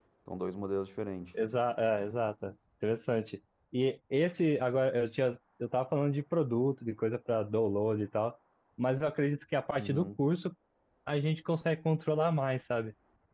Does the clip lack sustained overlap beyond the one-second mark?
Yes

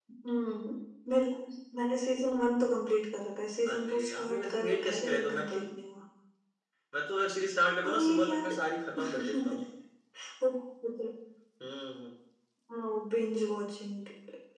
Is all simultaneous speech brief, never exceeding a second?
No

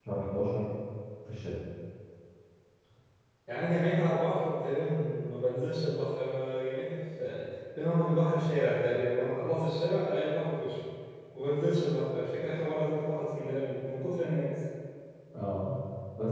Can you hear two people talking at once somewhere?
No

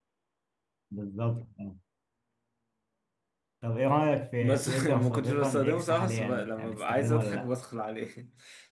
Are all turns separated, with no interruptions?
No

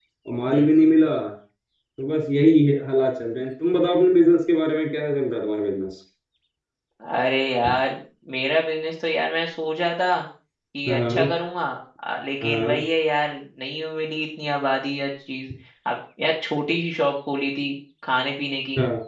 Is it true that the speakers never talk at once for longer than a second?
Yes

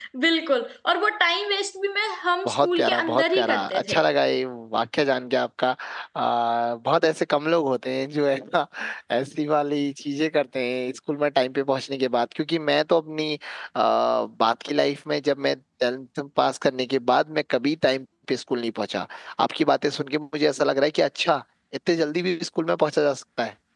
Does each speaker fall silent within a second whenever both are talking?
No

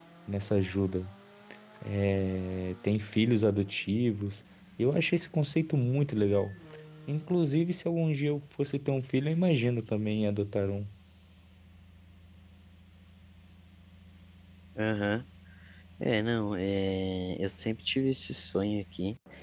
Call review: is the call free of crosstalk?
Yes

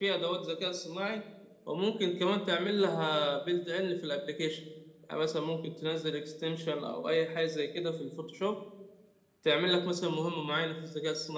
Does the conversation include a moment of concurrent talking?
No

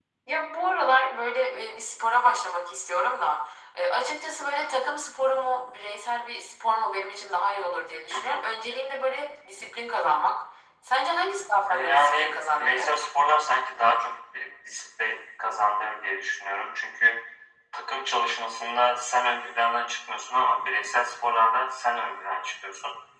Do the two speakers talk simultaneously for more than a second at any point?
Yes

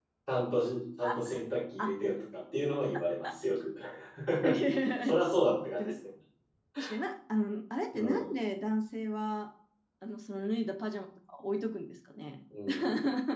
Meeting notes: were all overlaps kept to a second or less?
Yes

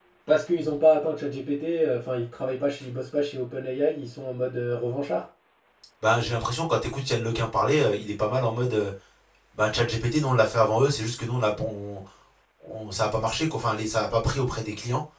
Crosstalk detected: No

